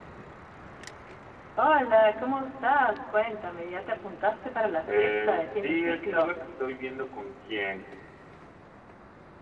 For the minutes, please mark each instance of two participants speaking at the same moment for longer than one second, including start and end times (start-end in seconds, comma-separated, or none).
4.9-6.3